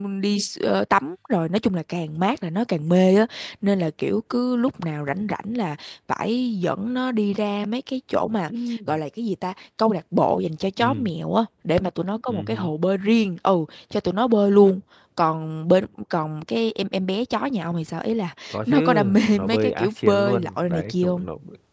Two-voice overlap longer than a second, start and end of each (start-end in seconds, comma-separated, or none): 18.5-21.2